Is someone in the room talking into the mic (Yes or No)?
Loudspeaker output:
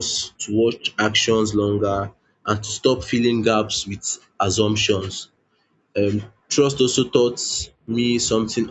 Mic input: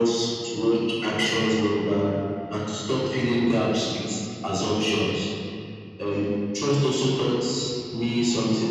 No